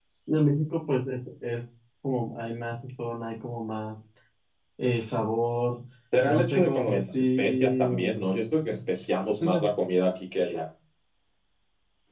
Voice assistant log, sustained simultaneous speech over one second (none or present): present